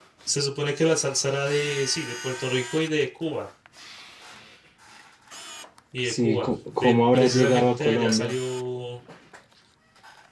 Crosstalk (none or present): present